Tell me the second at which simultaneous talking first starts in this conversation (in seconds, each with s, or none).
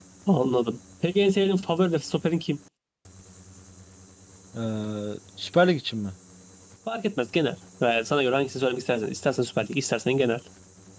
none